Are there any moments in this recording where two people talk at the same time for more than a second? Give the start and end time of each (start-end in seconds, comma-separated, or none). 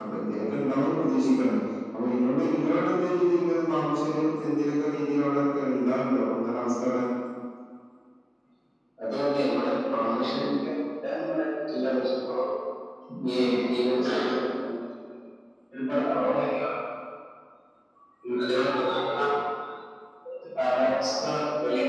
none